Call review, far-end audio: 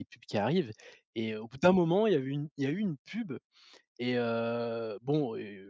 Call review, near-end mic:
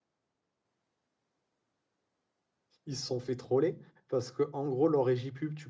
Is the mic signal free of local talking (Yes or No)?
No